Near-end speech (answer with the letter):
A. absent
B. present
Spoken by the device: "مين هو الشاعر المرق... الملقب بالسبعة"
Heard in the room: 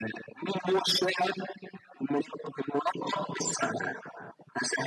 A